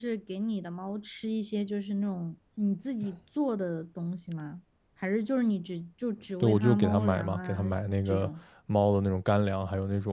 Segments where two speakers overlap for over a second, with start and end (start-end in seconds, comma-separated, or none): 6.4-7.6